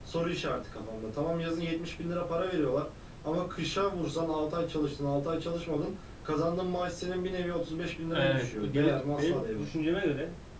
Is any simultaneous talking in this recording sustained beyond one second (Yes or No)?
Yes